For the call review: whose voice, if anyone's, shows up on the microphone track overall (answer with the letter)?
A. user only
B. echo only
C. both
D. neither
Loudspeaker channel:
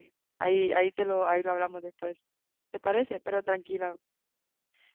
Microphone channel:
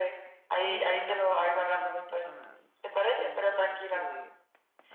C